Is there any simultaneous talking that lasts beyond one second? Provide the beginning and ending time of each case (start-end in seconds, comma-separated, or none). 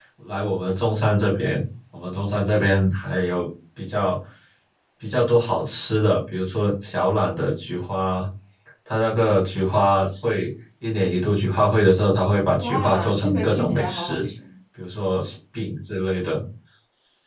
12.6-14.3